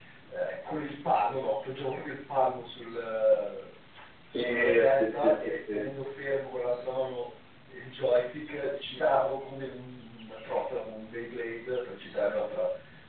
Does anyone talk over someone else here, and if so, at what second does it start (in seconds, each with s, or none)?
4.3 s